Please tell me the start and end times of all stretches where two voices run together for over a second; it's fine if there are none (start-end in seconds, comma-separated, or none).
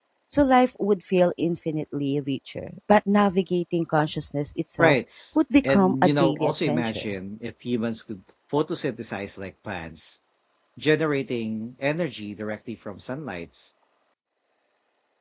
5.6-7.0